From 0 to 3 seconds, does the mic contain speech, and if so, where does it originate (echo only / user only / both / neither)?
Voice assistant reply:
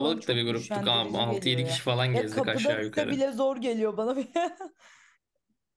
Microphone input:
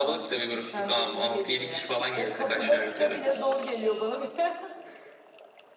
echo only